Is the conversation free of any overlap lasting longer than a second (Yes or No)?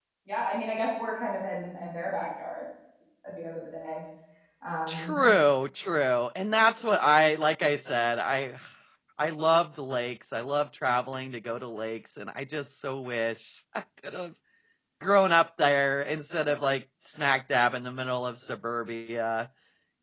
Yes